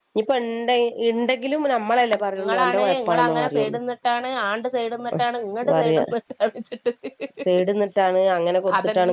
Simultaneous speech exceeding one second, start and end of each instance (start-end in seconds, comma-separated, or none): 2.4-3.7